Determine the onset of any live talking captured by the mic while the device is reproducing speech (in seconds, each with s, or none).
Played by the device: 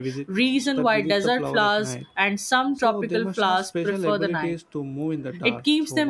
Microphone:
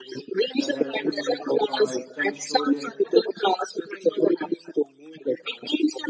0.6 s